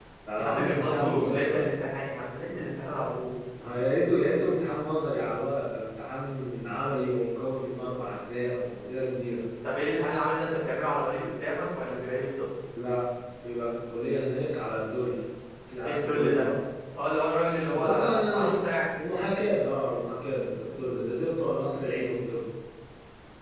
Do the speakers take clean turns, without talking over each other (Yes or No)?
No